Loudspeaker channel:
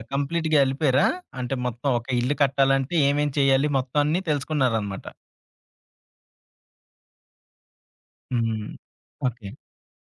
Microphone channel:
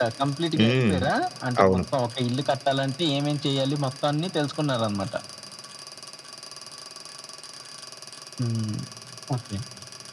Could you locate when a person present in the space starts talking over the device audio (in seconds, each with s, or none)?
0.6 s